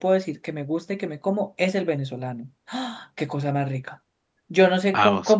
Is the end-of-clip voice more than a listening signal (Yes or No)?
No